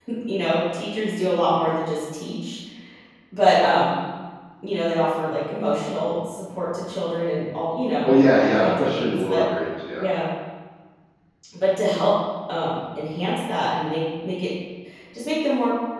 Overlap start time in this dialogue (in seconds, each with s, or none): 8.0 s